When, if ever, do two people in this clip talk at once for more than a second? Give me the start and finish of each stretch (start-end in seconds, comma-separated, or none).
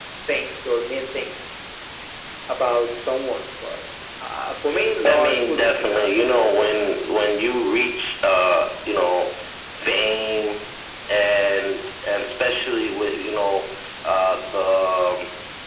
5.0-6.9